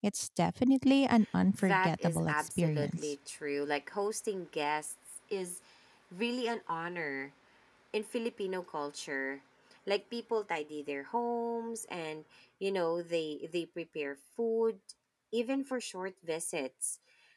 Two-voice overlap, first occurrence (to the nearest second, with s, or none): 2 s